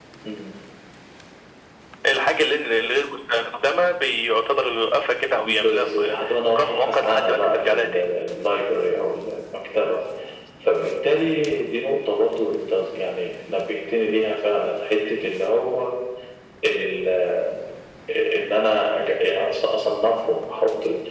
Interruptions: present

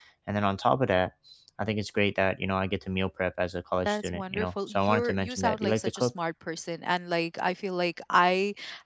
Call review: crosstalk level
present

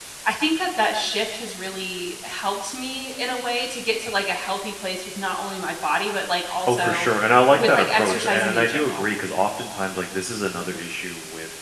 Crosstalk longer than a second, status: present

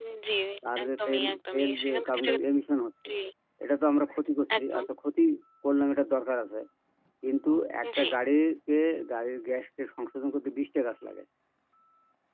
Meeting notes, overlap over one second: present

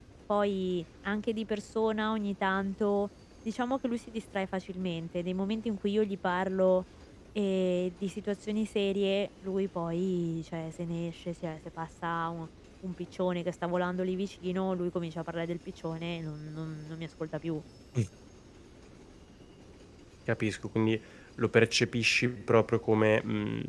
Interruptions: none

